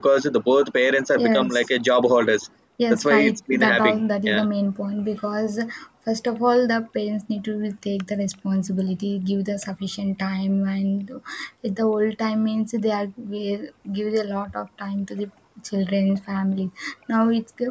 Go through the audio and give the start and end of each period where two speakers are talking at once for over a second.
2.9-4.4

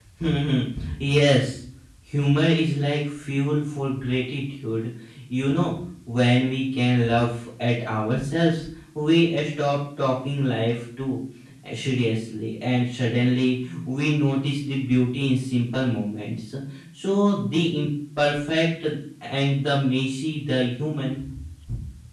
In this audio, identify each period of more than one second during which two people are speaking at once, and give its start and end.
none

